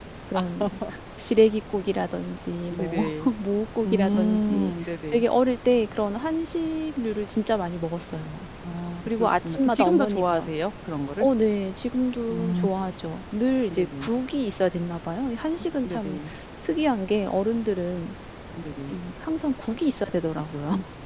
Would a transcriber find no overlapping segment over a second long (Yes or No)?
No